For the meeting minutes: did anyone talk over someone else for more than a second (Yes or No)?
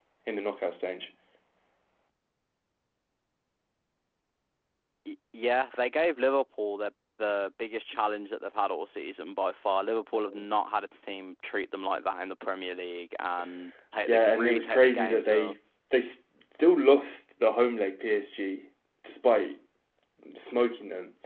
Yes